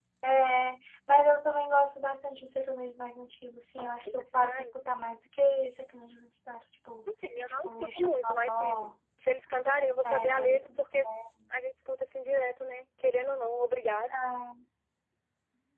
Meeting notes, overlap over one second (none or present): present